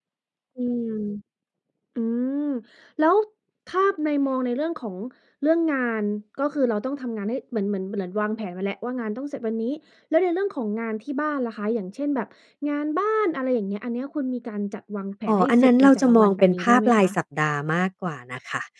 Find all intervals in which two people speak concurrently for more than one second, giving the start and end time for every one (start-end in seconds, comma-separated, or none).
15.3-17.1